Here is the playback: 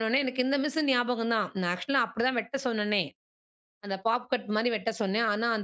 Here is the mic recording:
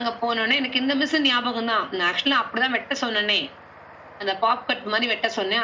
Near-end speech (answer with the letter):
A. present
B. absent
B